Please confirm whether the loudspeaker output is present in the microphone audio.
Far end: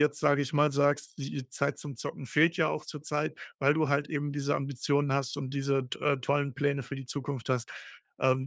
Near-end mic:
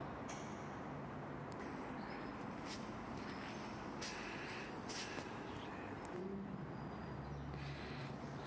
No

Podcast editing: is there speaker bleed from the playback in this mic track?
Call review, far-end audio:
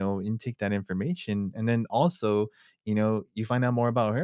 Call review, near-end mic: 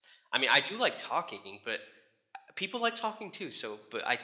No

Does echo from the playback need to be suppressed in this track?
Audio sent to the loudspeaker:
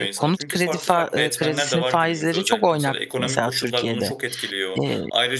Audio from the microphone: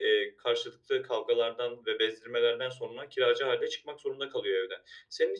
No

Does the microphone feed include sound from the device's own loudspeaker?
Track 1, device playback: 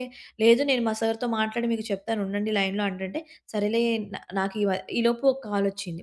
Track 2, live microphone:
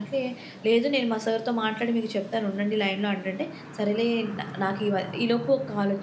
Yes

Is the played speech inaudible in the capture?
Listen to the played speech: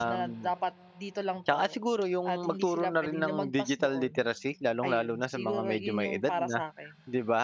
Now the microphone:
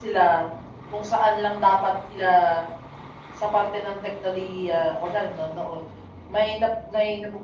Yes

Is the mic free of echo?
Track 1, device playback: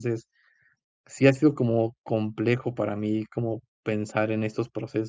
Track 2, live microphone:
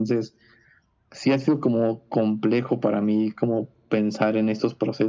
No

